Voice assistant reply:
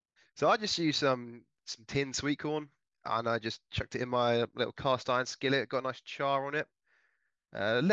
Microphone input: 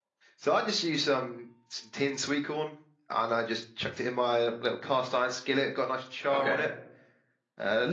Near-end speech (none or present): present